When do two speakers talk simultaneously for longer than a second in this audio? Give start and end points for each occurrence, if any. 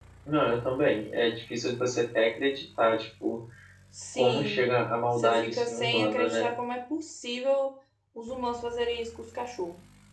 5.2-6.5

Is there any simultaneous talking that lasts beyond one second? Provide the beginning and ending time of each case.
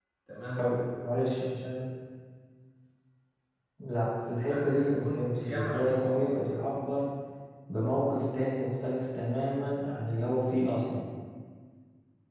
4.4-6.4

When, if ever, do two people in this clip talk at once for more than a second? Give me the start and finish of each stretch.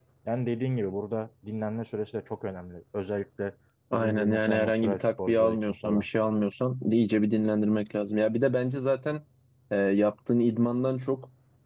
3.9-6.0

